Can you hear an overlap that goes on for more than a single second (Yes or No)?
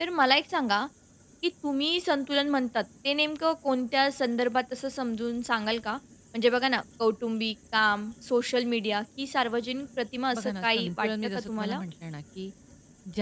Yes